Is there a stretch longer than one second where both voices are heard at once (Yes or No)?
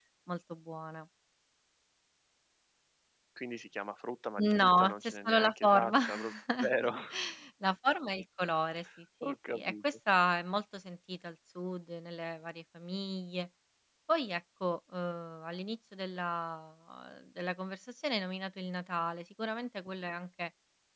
Yes